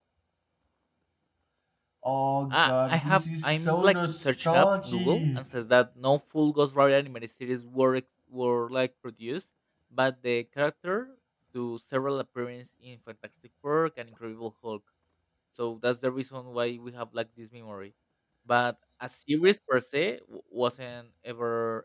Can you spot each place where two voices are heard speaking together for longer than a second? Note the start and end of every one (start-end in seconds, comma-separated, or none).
2.5-5.4